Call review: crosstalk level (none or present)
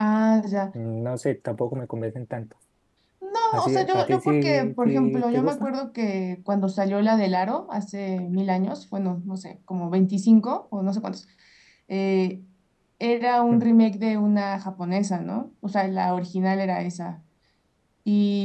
present